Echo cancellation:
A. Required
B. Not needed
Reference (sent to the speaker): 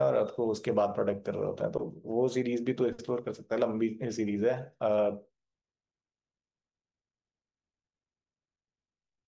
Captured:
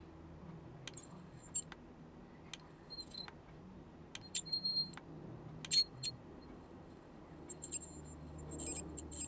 B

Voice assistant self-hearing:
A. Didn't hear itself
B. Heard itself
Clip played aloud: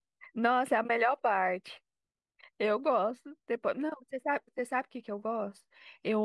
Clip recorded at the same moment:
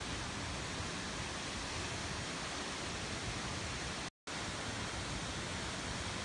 A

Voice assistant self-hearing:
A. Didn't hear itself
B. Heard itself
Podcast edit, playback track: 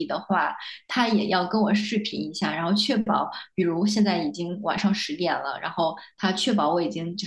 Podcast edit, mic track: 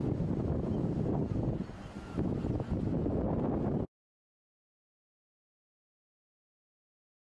A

